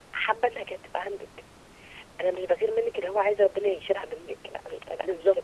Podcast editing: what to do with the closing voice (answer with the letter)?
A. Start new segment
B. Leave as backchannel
B